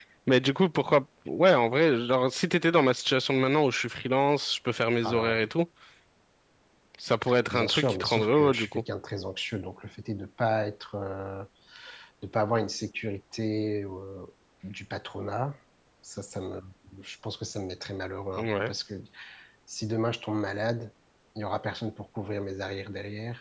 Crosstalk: present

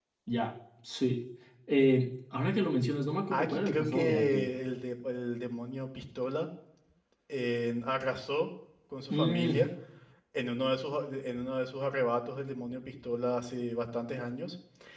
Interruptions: present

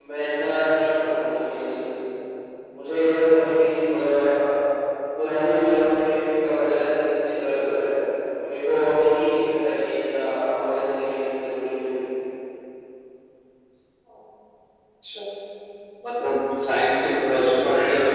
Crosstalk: none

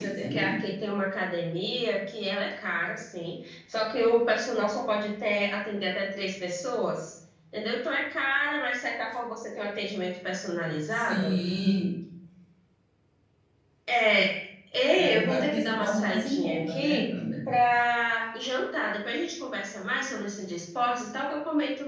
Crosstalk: present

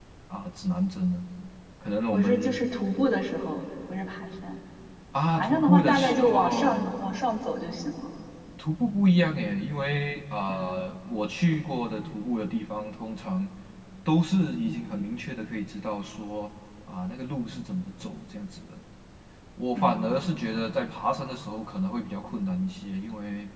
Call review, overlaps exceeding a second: present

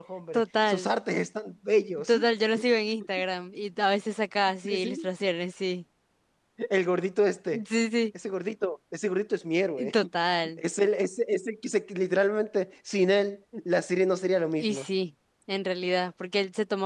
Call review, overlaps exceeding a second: none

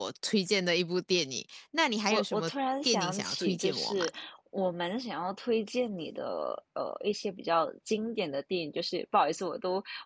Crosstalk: present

